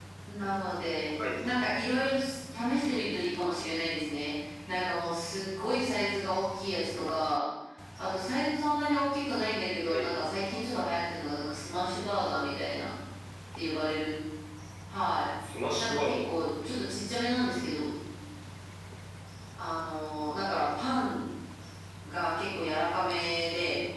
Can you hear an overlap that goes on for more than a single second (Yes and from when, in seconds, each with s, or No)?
No